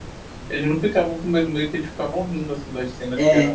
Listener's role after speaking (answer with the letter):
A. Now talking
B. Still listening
B